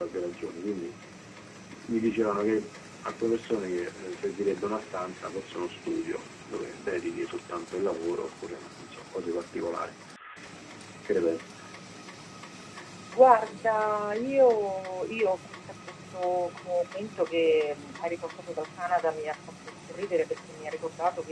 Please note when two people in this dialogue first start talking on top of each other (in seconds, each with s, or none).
none